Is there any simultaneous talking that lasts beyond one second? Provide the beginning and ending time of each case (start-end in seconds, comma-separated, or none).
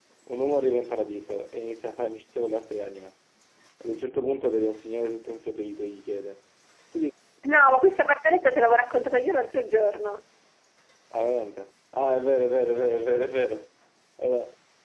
none